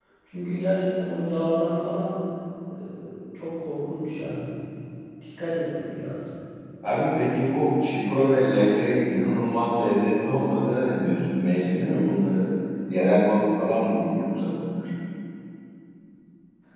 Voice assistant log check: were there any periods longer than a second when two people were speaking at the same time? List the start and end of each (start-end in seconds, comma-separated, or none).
none